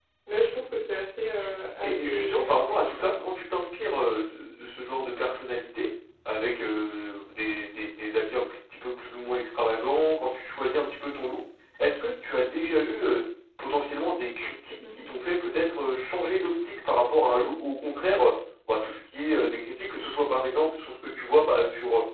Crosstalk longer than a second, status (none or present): present